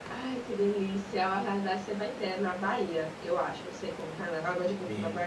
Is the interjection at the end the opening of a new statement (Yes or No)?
Yes